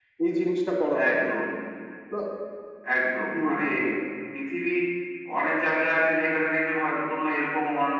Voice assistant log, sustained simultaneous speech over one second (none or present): none